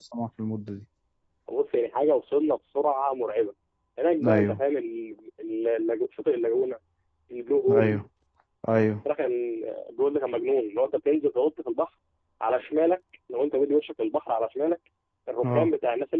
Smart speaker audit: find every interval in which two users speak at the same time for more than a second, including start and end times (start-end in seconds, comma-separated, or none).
none